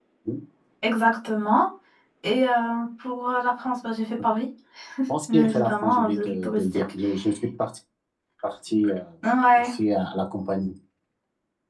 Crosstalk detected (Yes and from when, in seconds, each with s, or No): Yes, from 5.3 s